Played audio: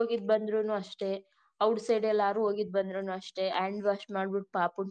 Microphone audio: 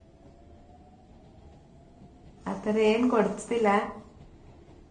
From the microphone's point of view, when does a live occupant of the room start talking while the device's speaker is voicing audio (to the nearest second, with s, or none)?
3 s